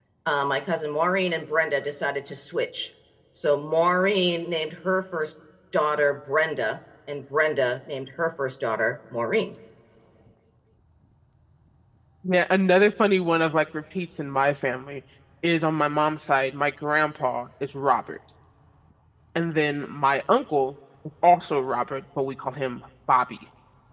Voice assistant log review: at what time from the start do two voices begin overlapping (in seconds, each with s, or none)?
none